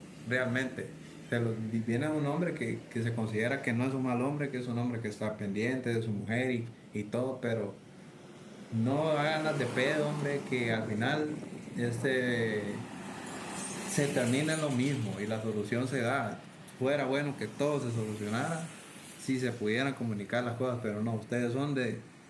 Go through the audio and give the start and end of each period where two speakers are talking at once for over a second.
none

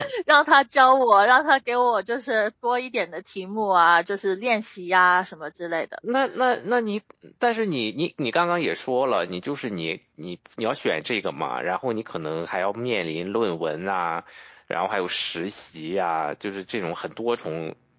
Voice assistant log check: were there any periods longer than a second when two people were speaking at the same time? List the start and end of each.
none

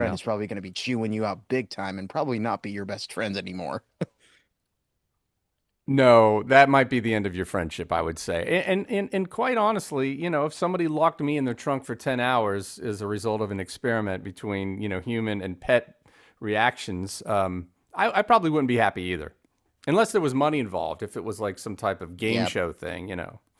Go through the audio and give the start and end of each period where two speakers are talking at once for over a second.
none

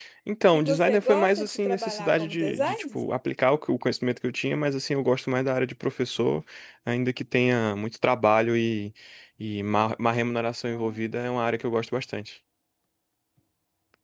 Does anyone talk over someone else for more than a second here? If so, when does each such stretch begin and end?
0.5-3.0

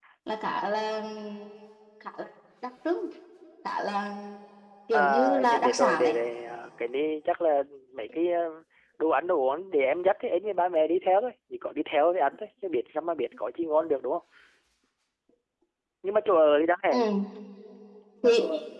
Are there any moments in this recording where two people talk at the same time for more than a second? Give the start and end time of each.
4.9-6.2

